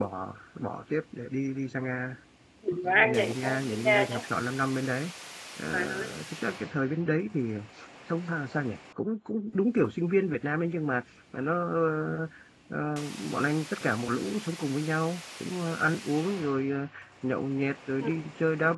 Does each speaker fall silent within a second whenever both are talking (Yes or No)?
No